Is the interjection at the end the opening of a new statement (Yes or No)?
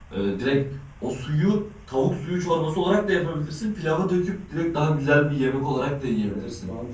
Yes